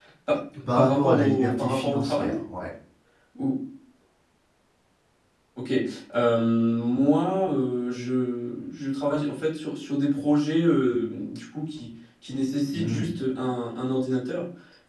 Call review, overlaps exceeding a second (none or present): present